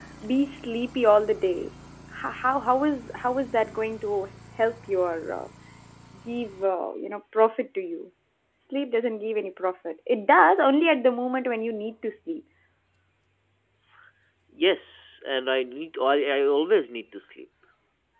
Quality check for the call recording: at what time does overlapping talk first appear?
none

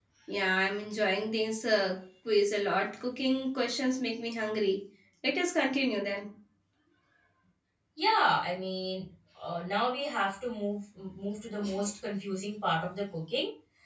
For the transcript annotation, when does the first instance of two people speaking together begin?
none

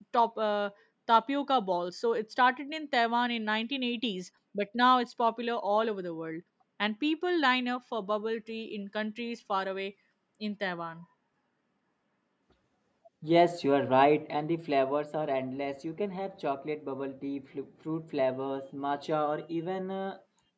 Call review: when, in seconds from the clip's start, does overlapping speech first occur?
none

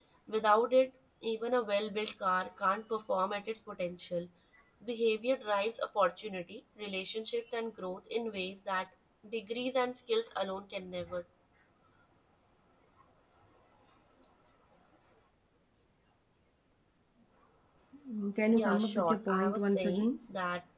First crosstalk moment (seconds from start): 18.4 s

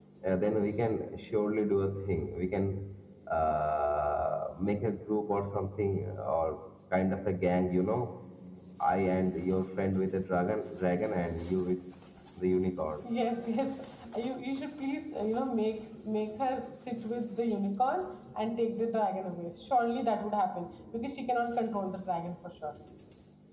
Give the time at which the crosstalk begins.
none

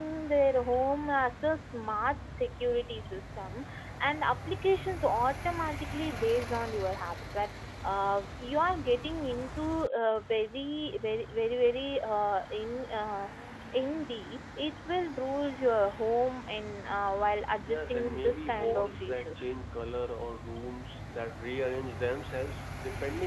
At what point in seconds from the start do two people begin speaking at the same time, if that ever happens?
17.6 s

